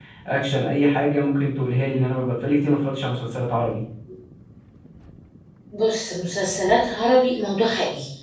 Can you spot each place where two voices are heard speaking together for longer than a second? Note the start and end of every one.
none

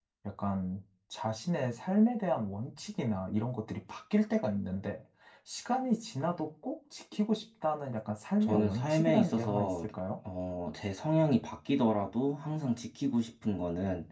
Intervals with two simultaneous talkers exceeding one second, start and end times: 8.4-9.9

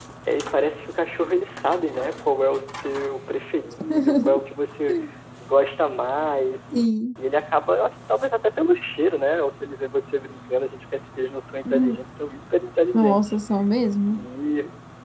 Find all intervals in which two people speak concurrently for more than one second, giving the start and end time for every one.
none

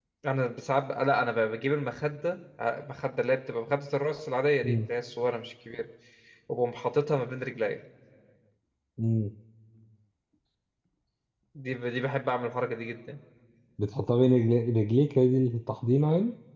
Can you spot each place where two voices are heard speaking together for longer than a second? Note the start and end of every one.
none

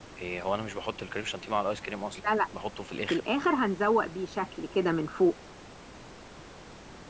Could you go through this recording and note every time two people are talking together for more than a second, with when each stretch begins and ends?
none

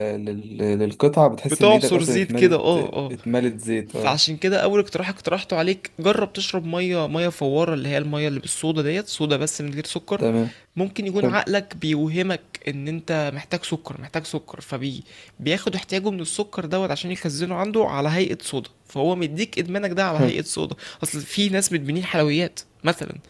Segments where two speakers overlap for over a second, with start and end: 1.5-3.1

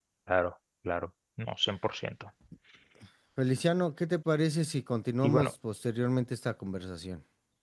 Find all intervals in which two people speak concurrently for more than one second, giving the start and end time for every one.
none

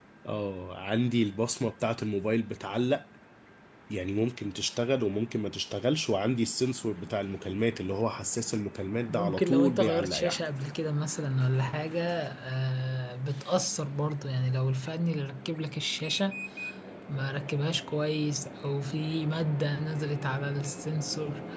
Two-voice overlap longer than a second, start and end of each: 9.1-10.4

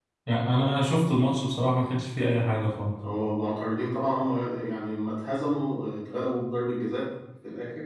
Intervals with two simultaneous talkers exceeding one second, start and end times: none

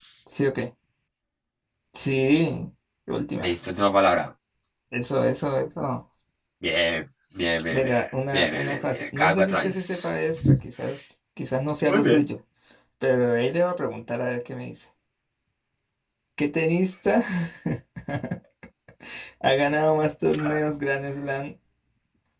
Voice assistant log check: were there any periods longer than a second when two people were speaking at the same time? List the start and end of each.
8.3-10.1

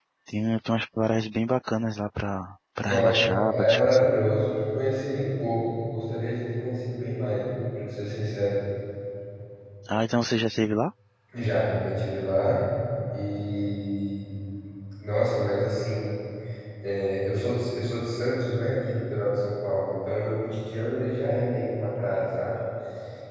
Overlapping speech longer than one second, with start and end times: 2.8-4.1

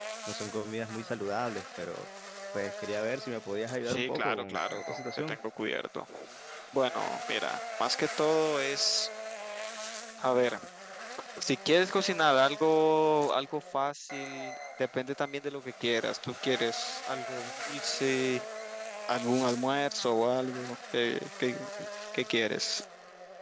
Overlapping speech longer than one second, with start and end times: 3.9-5.4

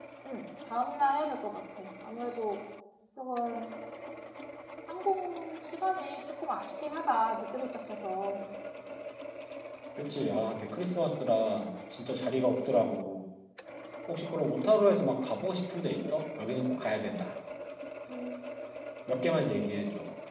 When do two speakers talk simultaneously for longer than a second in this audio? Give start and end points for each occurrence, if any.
none

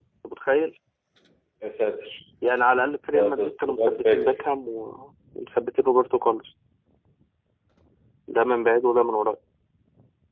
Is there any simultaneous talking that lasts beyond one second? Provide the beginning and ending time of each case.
3.1-4.4

